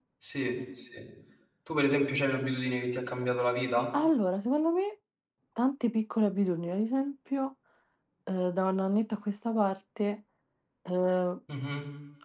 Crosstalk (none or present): none